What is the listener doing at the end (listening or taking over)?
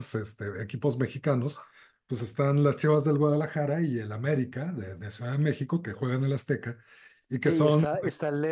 taking over